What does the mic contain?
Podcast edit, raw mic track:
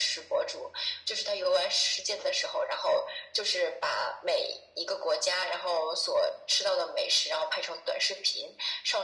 echo only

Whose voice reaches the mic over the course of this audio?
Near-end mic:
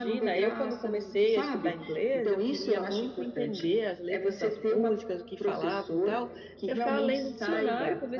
both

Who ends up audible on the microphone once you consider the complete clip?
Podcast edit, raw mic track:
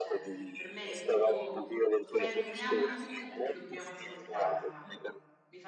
both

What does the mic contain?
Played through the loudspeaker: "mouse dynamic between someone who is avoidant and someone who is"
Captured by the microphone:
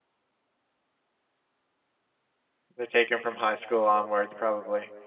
user only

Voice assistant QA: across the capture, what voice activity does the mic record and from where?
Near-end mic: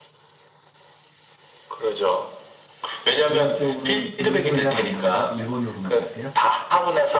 both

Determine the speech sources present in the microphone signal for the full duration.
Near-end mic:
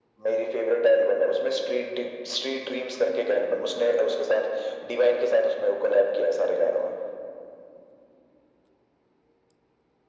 echo only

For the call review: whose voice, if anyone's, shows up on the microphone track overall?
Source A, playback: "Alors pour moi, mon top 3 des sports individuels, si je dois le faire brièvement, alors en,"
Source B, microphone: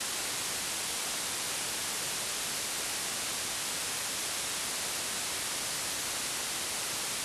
neither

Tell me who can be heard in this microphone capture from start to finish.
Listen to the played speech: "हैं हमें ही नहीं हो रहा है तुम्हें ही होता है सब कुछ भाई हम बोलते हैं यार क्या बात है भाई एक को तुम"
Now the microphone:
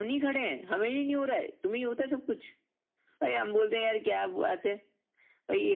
echo only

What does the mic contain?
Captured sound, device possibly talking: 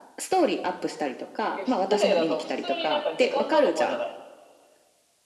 both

